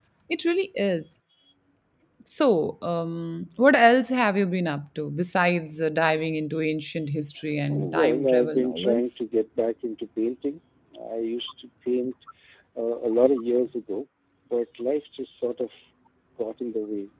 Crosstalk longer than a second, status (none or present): present